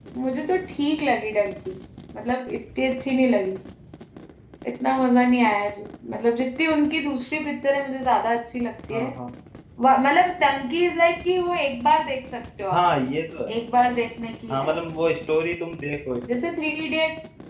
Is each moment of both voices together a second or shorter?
Yes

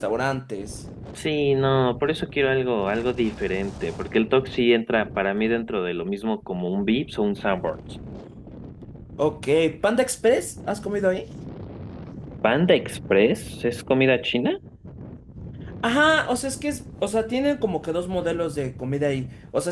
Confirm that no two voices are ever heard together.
Yes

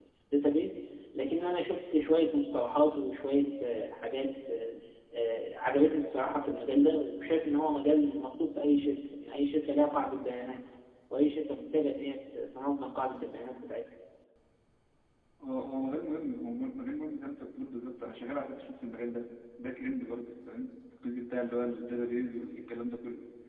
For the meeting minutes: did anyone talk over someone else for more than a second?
No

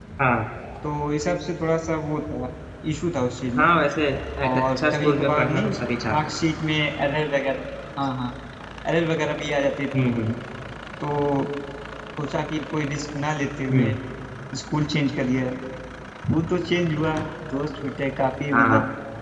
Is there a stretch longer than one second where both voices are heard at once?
Yes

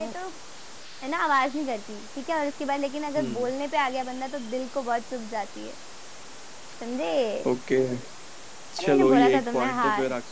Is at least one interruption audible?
Yes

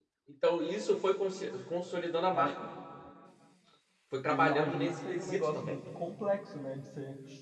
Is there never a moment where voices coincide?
No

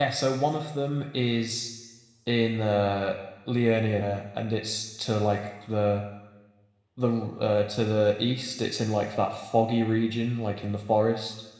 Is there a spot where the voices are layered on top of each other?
No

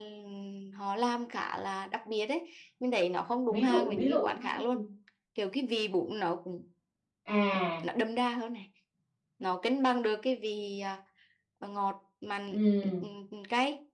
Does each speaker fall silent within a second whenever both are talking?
No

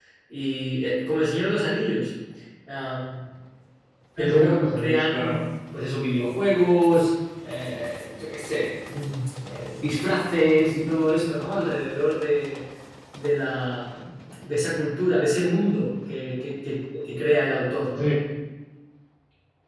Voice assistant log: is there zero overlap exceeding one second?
No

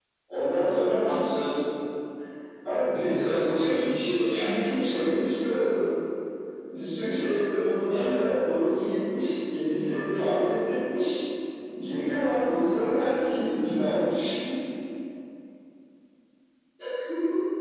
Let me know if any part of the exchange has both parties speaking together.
Yes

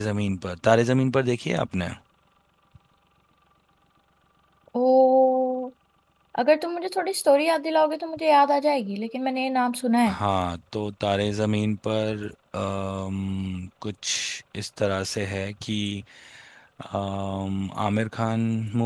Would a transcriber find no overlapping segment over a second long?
Yes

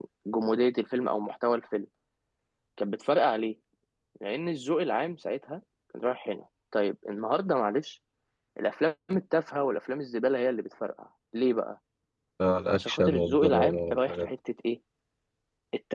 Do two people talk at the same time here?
Yes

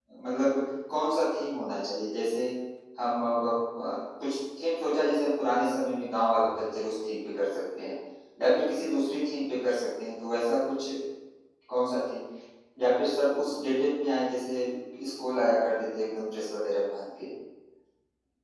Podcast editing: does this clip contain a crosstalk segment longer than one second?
No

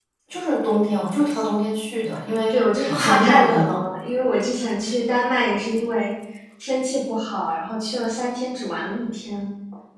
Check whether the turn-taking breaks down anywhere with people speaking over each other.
Yes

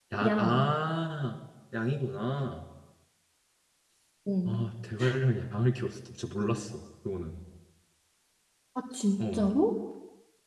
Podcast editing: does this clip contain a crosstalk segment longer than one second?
No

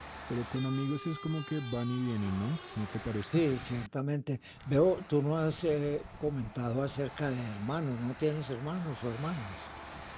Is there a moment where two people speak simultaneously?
No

